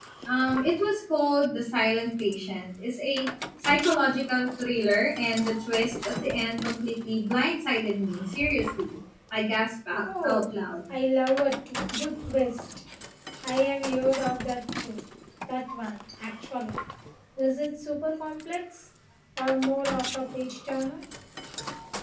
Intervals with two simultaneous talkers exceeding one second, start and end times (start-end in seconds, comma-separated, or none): none